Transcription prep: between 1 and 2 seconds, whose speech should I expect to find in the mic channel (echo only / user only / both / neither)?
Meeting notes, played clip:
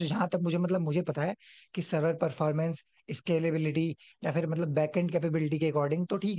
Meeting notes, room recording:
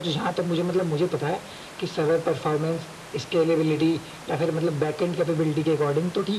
echo only